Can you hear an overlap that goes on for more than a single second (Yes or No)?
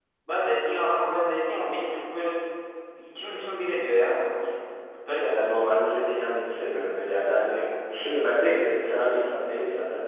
No